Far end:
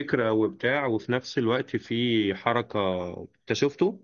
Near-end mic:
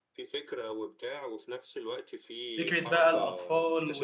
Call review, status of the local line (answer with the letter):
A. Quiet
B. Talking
B